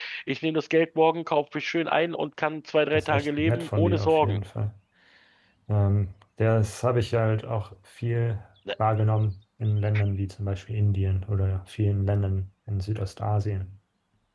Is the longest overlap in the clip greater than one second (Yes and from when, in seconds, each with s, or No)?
Yes, from 2.9 s